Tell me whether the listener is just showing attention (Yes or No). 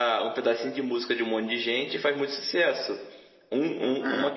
Yes